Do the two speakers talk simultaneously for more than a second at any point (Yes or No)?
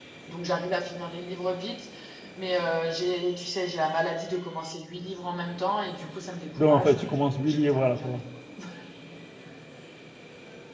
Yes